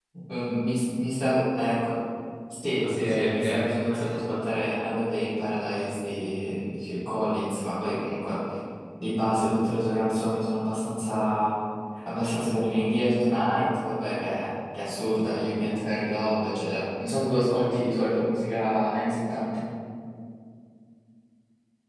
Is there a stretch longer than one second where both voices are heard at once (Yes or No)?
Yes